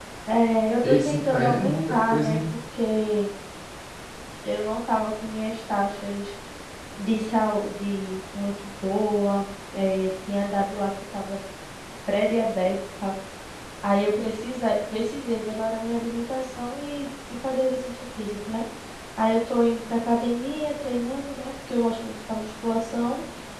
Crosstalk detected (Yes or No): Yes